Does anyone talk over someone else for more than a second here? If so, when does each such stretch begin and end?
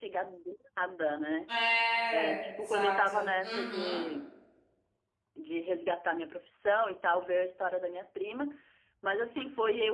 2.1-4.0

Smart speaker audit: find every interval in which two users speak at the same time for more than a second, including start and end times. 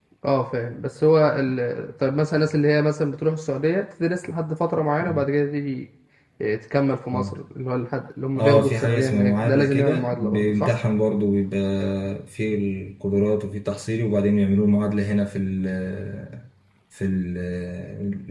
8.4-10.7

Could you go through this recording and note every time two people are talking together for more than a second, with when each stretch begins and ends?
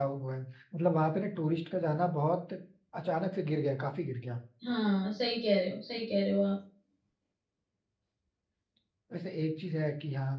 none

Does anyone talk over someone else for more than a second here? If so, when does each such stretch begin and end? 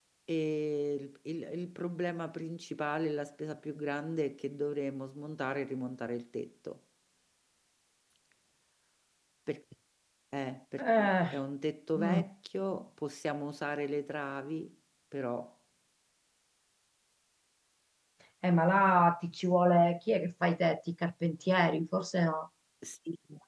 none

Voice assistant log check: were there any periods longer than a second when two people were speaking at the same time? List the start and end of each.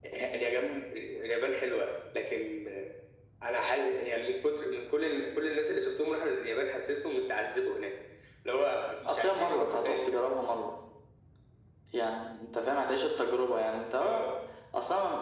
9.1-10.3

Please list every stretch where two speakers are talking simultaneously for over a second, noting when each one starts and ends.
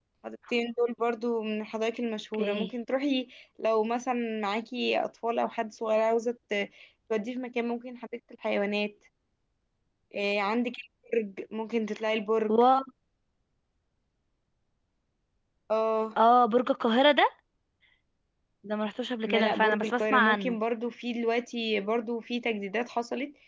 19.3-20.6

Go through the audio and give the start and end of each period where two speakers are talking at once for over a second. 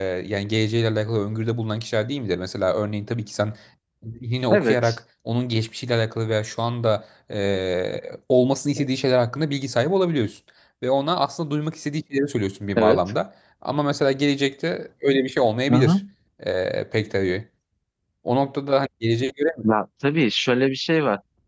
none

